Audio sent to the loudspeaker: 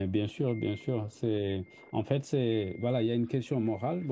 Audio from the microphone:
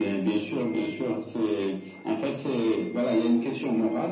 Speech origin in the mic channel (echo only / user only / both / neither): echo only